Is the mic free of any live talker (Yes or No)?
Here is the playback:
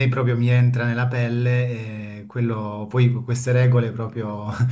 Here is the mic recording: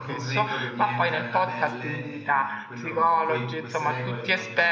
No